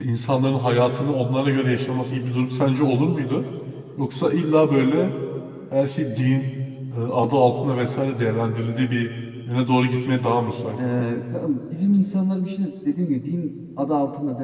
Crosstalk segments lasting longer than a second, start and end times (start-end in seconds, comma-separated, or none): none